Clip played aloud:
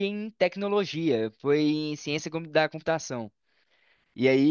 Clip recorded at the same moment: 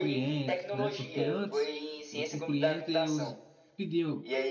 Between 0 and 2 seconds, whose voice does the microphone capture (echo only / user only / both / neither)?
both